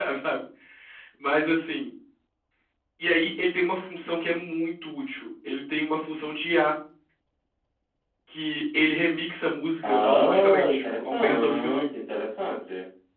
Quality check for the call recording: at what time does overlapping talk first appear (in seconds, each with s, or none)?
9.8 s